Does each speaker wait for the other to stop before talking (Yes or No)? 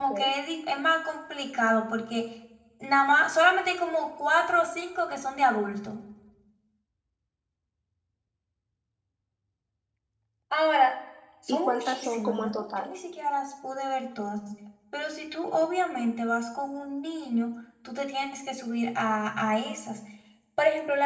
No